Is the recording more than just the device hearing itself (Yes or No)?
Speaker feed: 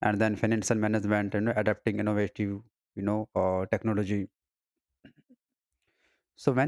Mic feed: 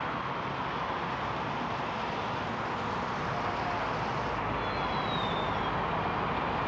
No